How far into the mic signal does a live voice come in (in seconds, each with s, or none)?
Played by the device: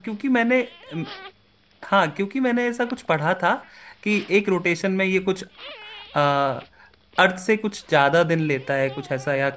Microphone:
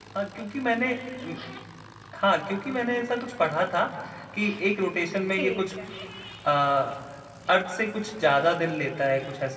5.3 s